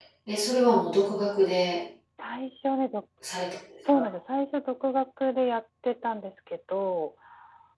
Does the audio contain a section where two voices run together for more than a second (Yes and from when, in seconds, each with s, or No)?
No